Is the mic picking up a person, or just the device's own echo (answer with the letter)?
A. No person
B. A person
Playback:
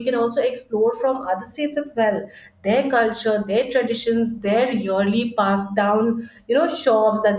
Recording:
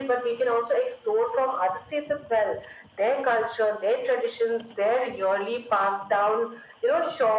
A